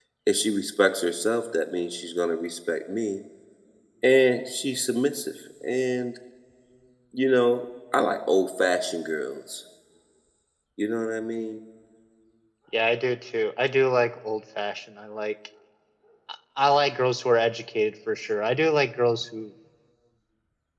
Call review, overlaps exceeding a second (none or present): none